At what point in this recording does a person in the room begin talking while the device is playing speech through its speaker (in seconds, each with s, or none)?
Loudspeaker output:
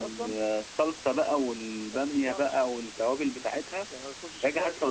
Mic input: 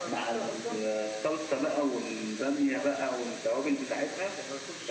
none